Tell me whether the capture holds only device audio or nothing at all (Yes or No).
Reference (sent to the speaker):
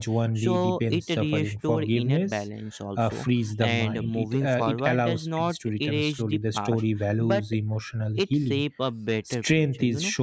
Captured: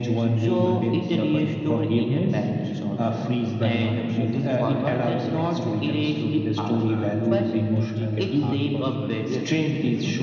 No